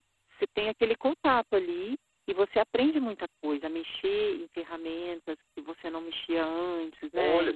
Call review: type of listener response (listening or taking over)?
taking over